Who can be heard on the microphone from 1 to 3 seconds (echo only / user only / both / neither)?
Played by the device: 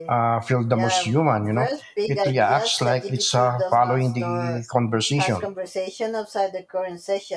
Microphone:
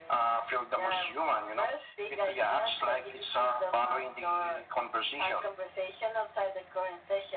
echo only